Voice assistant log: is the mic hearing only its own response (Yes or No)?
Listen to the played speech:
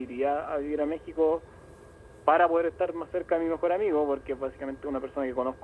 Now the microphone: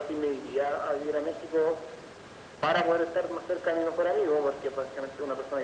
Yes